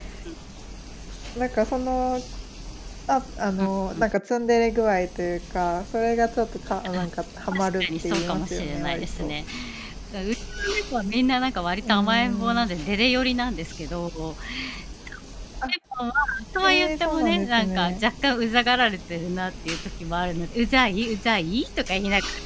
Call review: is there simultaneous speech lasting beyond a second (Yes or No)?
Yes